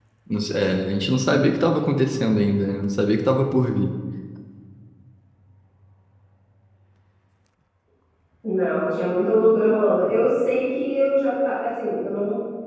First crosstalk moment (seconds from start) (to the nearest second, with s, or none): none